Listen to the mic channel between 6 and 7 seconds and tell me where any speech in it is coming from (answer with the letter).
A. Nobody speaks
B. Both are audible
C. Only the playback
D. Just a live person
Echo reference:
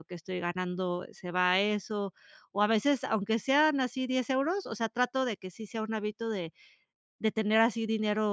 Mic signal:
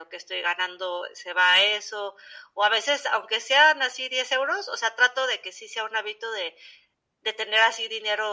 C